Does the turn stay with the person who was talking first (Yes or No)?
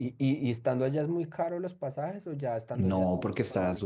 No